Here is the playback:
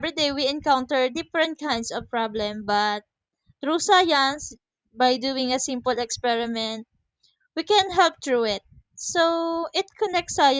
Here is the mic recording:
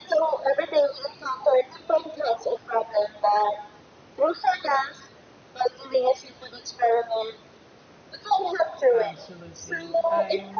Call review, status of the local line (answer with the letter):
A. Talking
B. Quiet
A